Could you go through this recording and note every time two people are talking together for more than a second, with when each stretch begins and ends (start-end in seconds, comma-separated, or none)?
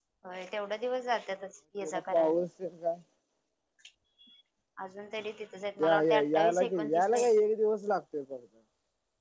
5.8-7.3